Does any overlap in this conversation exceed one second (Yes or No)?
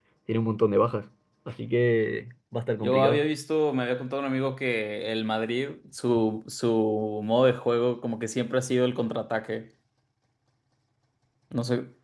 No